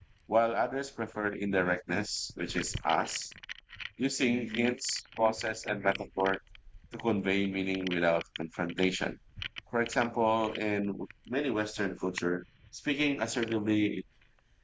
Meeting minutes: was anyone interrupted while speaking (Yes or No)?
No